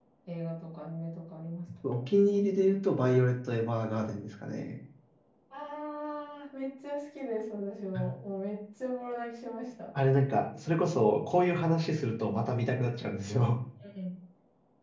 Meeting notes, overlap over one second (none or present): none